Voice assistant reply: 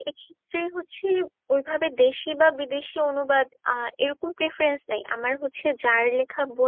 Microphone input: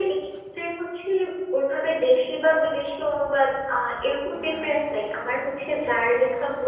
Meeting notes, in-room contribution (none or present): none